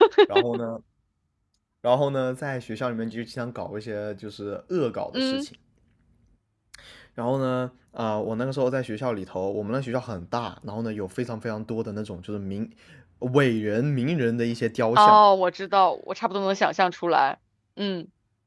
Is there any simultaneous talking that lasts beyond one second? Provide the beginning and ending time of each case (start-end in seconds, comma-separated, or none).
none